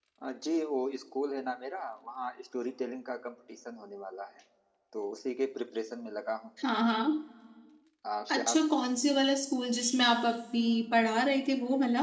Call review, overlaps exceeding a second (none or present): none